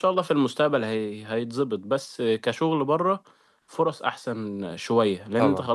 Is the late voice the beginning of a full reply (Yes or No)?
No